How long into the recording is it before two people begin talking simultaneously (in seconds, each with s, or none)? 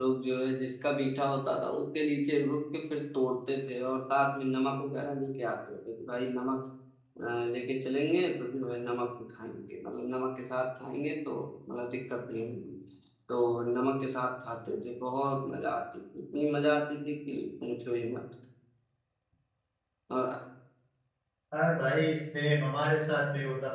none